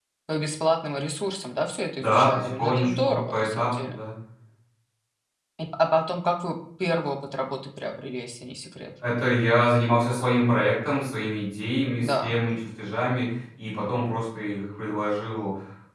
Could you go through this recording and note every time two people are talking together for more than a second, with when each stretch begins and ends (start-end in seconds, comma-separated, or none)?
2.0-4.0